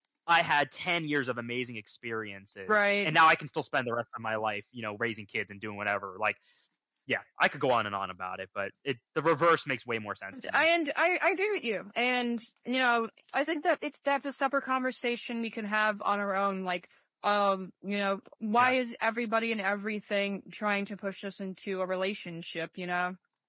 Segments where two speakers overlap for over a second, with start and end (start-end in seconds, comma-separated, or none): none